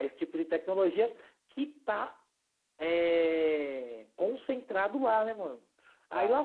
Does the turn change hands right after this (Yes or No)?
No